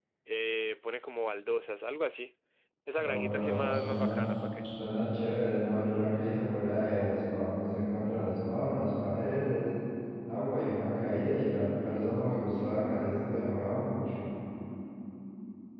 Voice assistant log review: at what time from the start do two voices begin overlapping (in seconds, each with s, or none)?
3.0 s